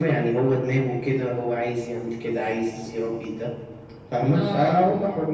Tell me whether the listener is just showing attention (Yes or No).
Yes